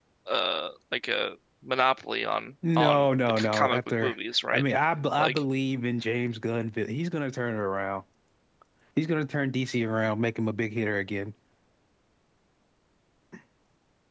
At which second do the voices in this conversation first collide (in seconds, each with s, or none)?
2.8 s